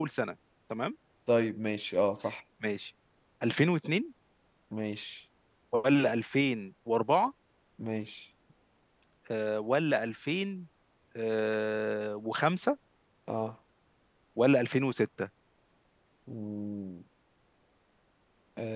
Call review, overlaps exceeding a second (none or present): none